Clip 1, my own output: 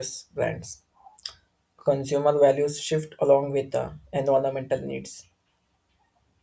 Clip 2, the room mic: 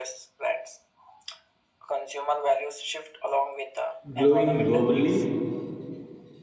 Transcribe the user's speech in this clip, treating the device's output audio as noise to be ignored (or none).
growing globally.